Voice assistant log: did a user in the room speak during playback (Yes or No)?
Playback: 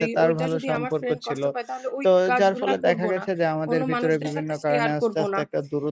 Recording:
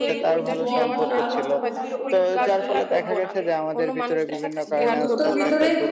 Yes